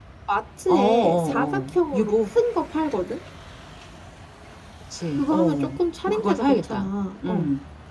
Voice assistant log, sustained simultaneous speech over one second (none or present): present